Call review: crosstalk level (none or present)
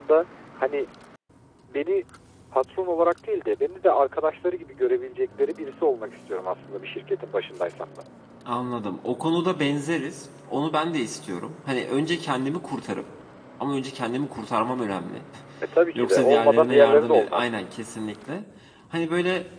present